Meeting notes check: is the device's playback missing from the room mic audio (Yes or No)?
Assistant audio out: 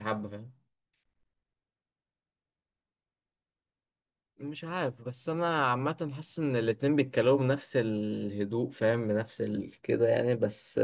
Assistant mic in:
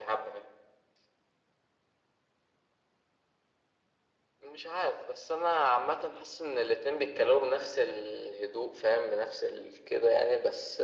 No